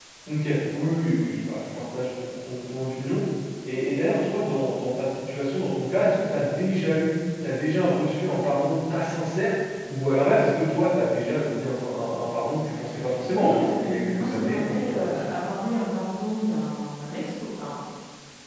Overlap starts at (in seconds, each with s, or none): 13.3 s